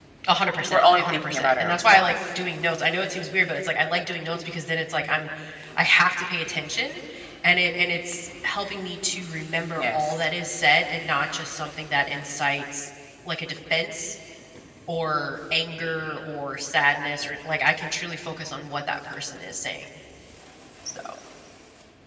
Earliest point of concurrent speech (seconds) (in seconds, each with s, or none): 0.7 s